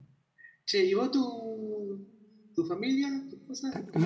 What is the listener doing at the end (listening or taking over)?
taking over